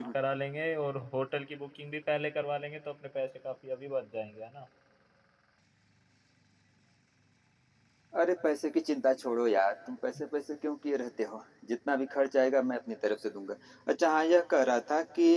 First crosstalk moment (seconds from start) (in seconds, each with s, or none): none